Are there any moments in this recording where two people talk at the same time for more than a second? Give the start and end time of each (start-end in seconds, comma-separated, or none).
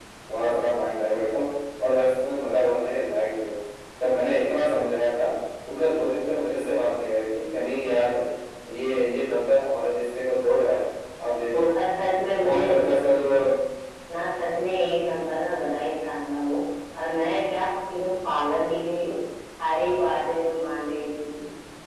none